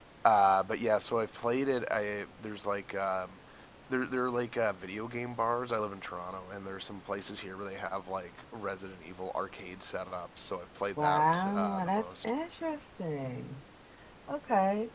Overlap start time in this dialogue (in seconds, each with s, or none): 11.0 s